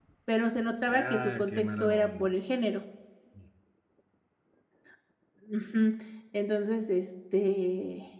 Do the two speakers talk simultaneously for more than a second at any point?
Yes, from 0.9 s

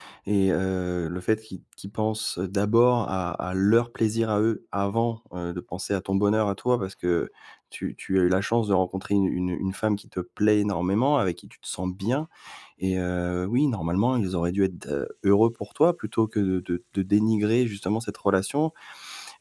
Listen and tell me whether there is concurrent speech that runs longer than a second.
No

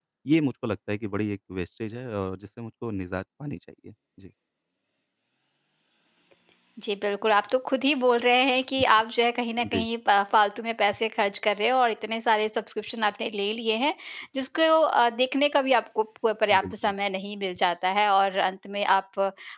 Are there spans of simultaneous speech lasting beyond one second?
No

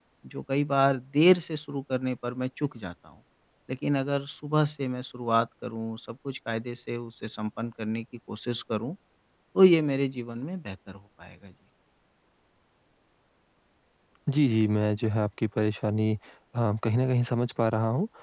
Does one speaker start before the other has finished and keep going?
No

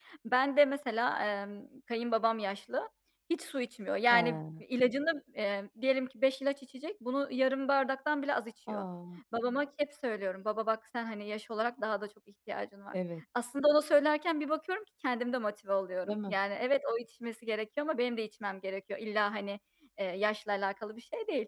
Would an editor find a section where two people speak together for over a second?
No

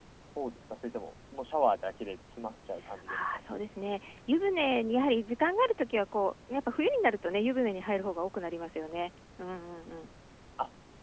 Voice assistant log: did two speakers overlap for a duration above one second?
No

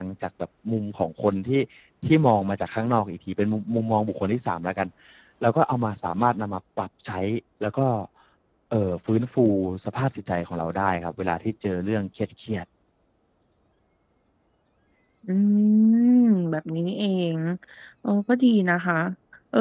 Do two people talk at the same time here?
No

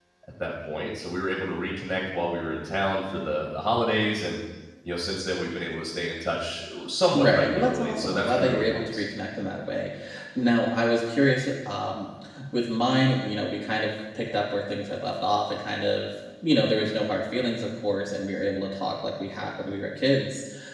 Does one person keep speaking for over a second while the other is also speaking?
Yes, from 7.1 s

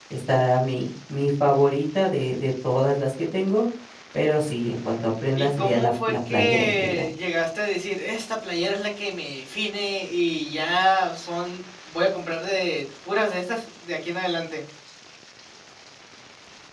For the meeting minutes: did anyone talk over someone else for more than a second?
Yes, from 5.4 s

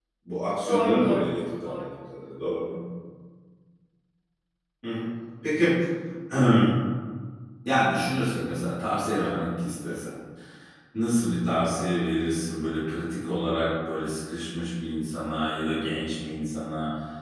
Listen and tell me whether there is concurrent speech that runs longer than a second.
Yes, from 0.7 s

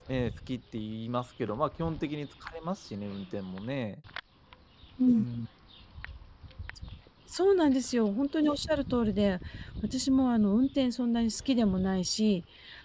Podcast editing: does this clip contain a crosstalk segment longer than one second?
No

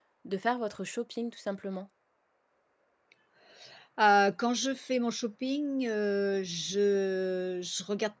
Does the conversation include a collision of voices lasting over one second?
No

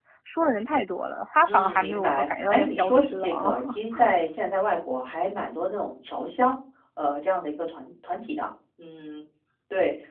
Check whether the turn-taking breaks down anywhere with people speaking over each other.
Yes, from 1.4 s

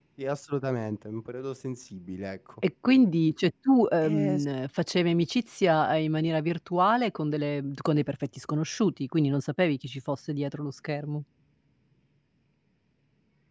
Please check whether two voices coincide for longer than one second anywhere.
No

